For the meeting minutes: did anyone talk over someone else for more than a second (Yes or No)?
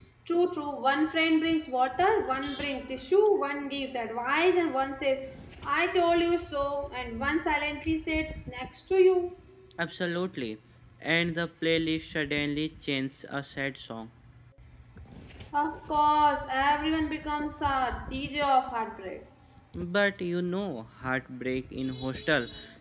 No